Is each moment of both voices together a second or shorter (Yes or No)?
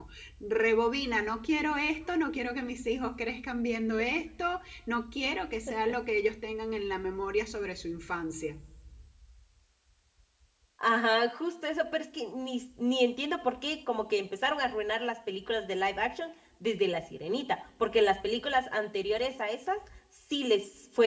Yes